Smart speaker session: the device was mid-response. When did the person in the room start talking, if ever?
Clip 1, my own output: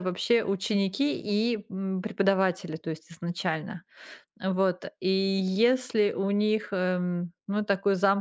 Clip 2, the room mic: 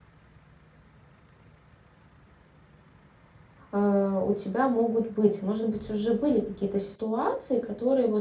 3.7 s

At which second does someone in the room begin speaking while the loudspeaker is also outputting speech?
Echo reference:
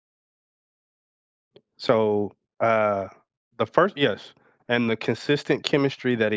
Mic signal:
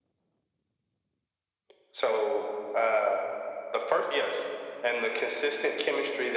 none

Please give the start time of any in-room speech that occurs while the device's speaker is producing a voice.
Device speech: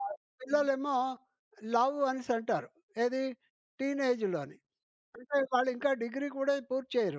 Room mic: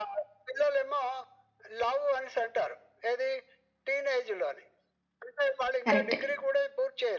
5.9 s

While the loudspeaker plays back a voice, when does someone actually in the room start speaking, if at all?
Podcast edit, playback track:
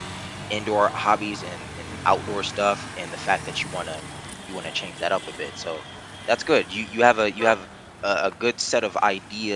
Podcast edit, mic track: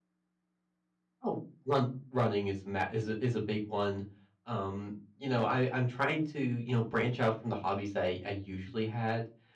1.2 s

